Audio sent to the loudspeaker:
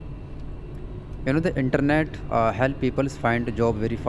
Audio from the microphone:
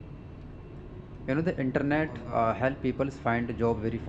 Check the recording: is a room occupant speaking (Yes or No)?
Yes